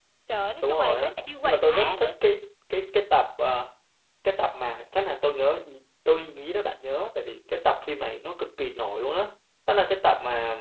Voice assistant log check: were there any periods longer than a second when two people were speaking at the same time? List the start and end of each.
0.6-2.1

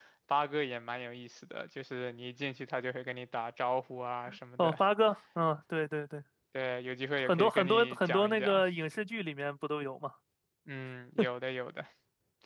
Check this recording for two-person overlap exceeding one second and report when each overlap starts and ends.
7.2-8.6

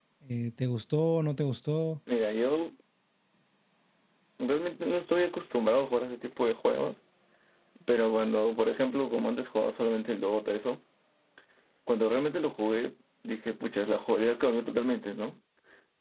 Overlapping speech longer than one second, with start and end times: none

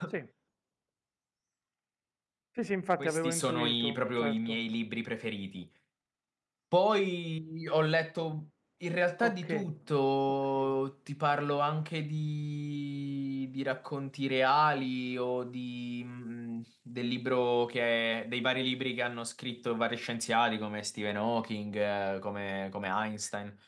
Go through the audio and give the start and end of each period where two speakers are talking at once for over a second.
3.0-4.6

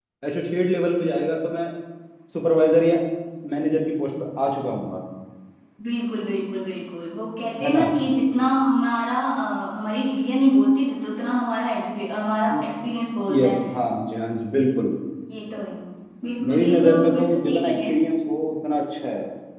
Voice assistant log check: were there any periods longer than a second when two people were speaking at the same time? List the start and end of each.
16.5-17.9

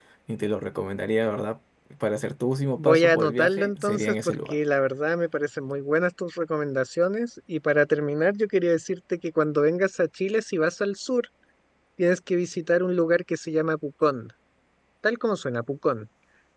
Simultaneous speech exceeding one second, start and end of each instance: 2.8-4.6

